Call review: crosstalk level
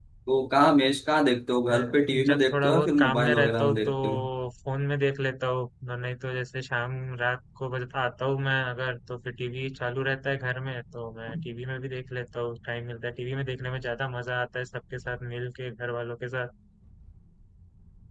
present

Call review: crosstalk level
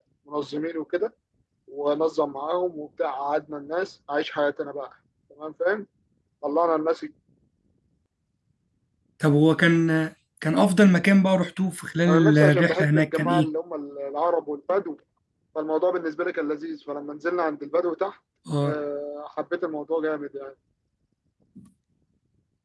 present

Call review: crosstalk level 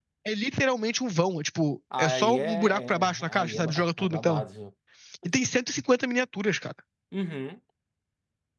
present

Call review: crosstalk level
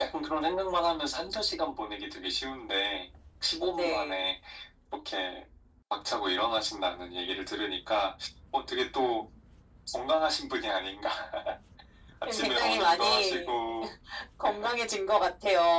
present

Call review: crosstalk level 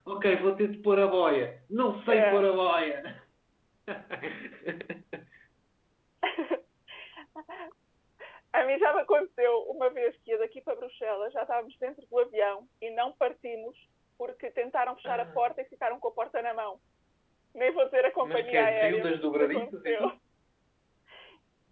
present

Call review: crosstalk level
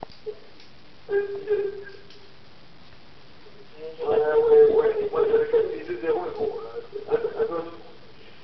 present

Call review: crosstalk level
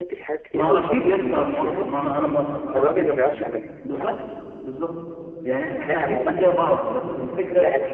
present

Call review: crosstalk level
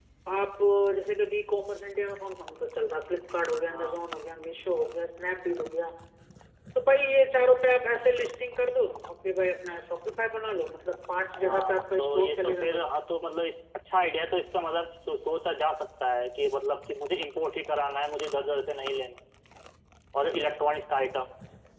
present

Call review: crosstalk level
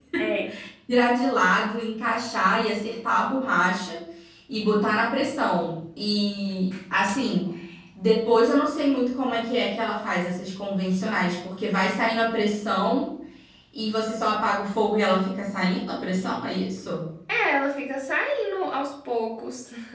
none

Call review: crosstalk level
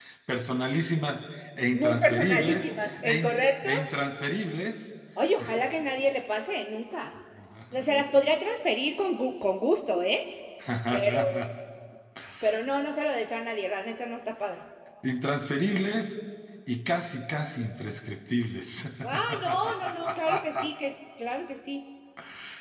present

